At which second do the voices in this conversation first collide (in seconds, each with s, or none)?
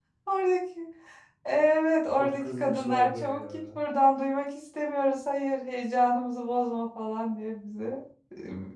2.2 s